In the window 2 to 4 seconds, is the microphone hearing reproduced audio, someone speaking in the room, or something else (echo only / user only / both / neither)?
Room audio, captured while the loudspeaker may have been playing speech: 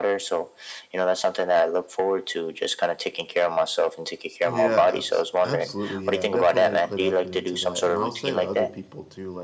echo only